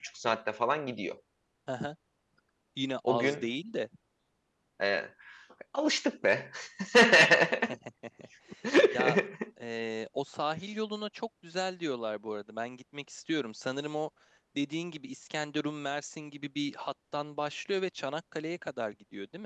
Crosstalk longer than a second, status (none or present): none